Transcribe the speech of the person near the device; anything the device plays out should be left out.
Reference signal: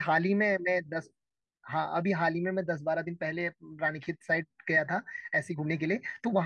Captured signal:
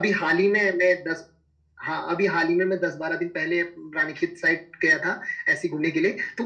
none

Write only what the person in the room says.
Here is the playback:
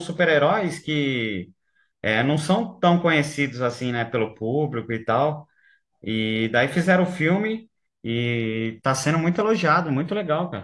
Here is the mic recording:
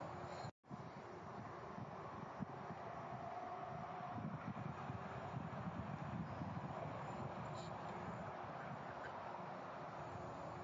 none

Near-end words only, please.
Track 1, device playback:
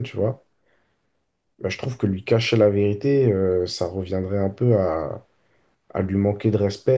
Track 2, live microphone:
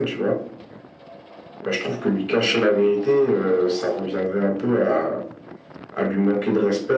none

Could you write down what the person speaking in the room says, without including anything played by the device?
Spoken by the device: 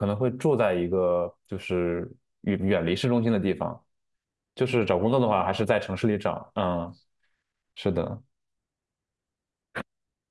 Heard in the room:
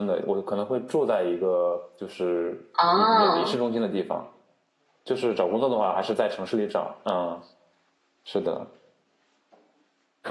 啊！

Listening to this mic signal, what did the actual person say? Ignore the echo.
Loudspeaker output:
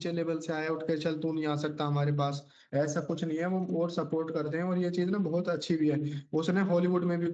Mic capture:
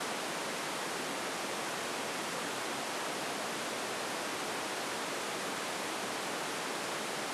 none

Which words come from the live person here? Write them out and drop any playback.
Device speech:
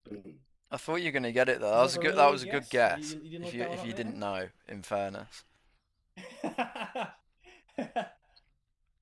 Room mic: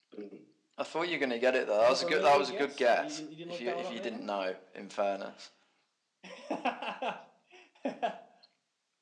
none

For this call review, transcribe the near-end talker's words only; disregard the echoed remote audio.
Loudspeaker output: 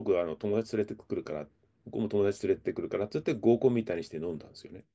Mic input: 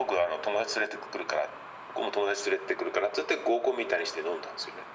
none

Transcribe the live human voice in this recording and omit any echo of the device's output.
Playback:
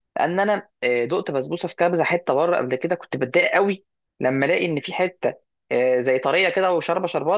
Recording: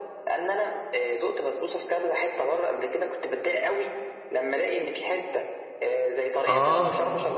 اه

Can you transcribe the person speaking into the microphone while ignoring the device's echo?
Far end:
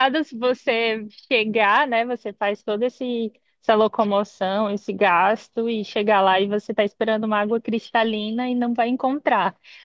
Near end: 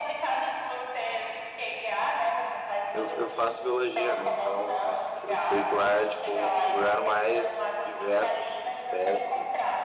eu, eu faço biologia, né? Então eu sei que lá é tipo um dos lugares mais diversos assim de espécies

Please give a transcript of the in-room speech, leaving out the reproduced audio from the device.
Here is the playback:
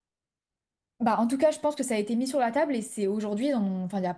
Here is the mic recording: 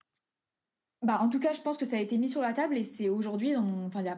none

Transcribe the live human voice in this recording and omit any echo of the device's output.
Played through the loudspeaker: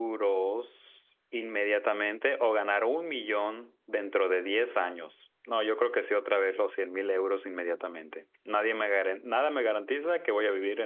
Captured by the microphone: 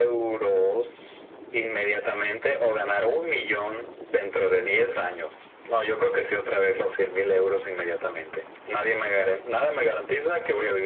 none

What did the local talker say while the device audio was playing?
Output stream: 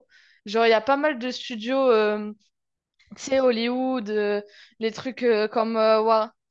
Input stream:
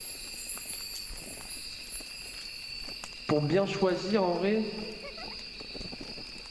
pour bien choisir en vrai,

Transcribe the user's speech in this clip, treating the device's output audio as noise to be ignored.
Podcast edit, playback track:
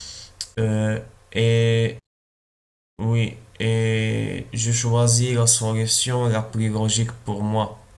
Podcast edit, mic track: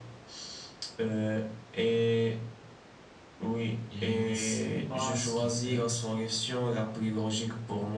il ne sait pas ce qu'il fait,

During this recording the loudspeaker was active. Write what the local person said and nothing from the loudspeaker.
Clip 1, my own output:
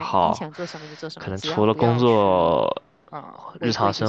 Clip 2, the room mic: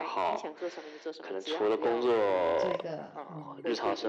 做一个嗯

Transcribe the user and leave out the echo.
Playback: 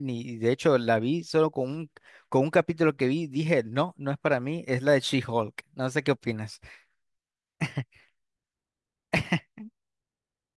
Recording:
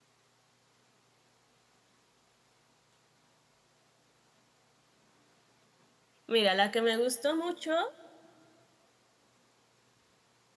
Mira, la que me gustó mucho

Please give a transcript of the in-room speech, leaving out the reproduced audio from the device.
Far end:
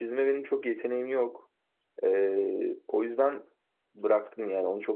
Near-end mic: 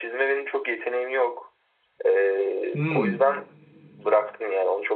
Hmm.

